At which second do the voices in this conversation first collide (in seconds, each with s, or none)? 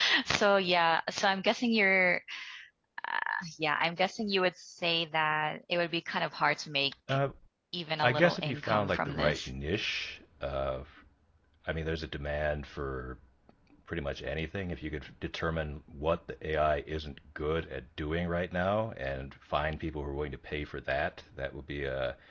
8.0 s